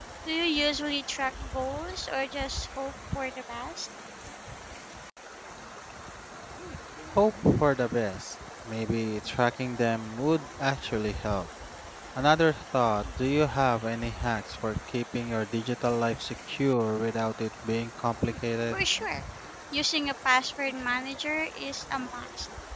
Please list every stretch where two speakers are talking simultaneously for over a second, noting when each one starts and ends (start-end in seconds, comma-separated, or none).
none